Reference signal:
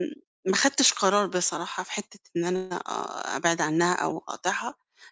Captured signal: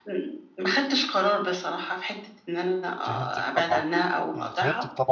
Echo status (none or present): present